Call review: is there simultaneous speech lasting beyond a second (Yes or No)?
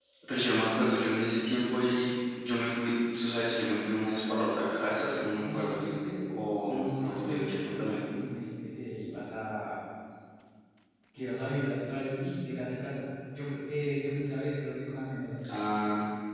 Yes